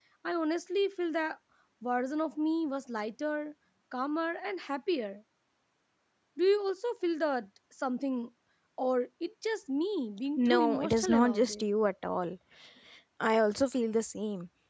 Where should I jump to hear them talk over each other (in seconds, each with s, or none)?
10.4 s